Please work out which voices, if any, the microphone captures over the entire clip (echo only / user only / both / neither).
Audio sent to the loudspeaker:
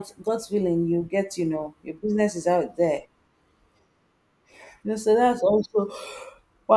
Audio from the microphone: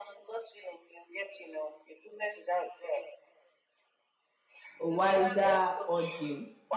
both